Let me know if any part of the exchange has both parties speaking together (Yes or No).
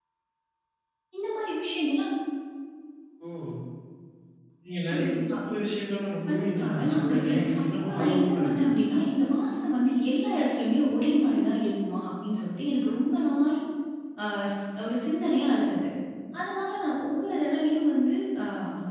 Yes